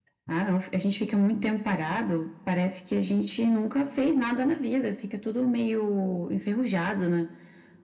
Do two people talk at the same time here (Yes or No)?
No